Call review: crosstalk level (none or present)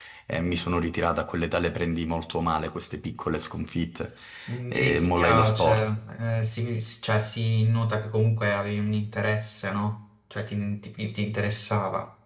present